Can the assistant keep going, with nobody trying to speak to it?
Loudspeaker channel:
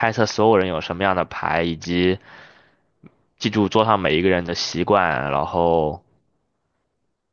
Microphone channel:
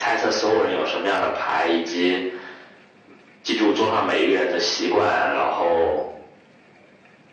Yes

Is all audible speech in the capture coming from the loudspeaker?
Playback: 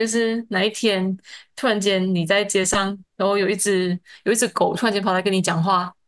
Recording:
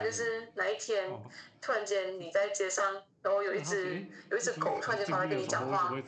No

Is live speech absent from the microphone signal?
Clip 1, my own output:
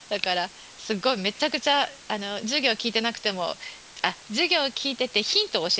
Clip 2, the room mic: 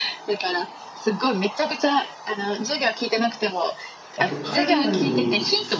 No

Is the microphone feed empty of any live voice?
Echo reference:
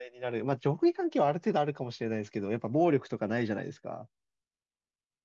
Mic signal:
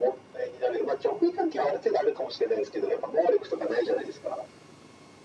Yes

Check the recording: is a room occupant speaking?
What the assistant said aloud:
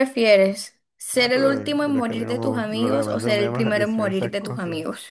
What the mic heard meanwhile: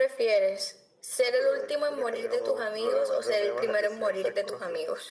No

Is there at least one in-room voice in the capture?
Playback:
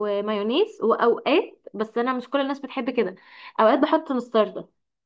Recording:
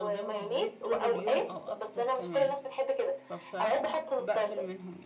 Yes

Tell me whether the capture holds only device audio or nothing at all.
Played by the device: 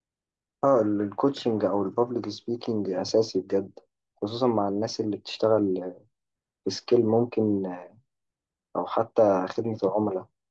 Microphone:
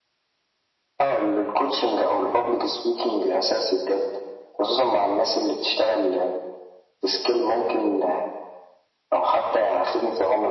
Yes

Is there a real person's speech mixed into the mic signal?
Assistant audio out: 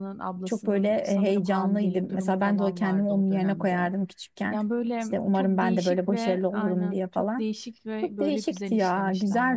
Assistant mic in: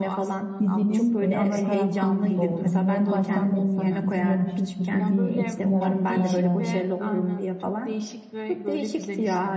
Yes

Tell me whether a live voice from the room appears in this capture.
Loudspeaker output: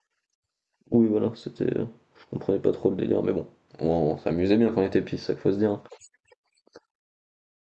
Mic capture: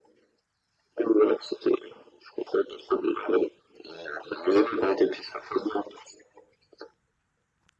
No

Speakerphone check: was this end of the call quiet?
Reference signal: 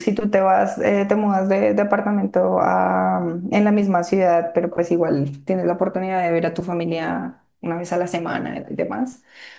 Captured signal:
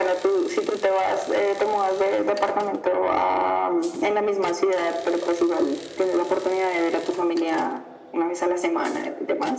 Yes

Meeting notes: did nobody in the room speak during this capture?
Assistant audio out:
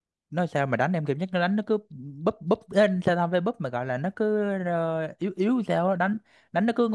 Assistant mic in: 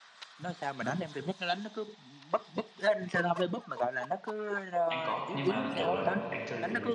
No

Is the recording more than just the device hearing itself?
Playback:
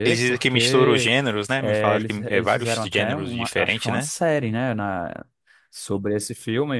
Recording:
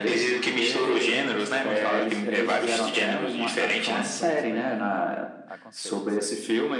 Yes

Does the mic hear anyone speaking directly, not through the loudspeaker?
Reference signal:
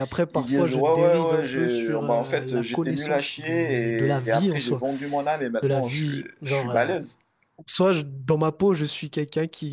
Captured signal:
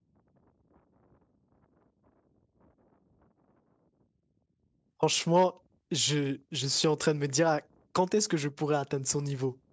Yes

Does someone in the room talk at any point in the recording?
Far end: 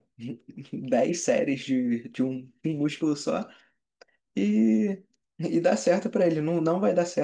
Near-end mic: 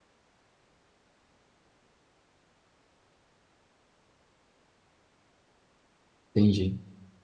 Yes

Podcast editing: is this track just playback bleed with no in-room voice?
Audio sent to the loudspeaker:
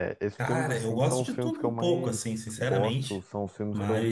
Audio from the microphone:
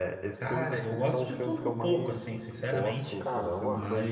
No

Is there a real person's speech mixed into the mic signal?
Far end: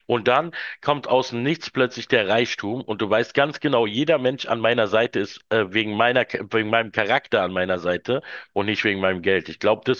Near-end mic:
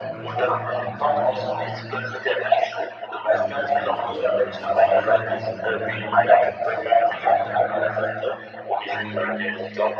Yes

